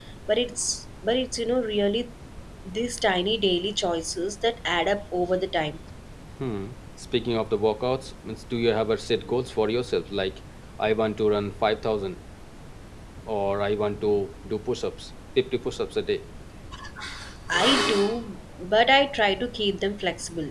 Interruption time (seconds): none

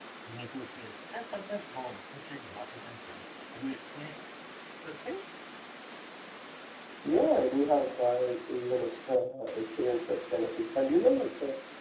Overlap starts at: none

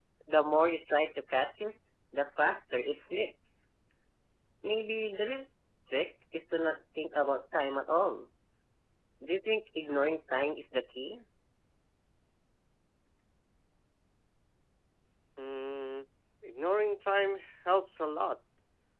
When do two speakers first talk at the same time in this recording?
none

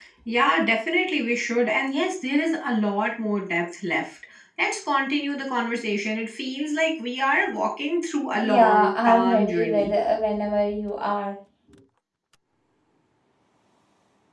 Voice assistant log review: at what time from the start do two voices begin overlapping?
8.3 s

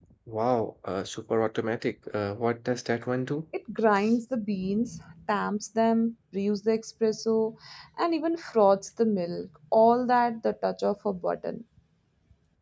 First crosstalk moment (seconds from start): none

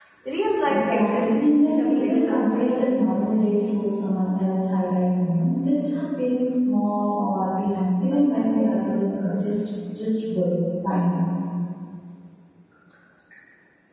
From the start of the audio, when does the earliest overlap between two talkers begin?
0.6 s

